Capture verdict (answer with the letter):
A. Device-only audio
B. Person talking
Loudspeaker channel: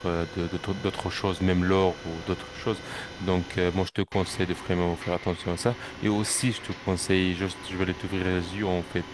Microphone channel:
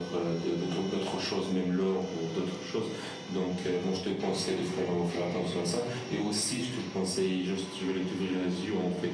A